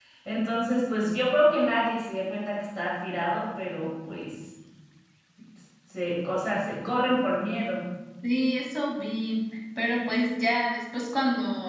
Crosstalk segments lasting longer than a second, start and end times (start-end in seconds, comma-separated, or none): none